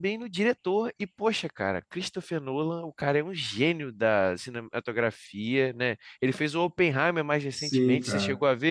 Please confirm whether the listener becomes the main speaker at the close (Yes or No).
Yes